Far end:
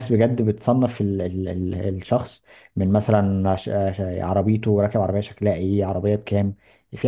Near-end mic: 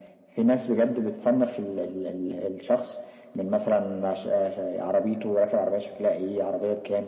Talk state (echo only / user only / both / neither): echo only